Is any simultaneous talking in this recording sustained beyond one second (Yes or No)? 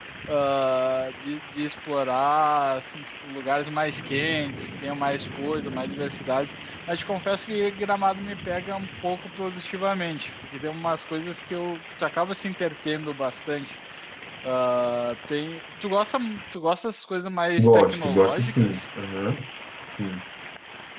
Yes